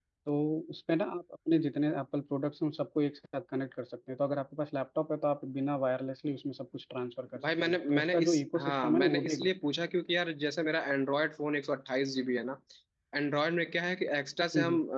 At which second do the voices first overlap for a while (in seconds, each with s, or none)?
7.6 s